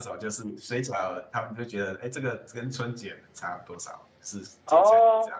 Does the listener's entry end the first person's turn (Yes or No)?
Yes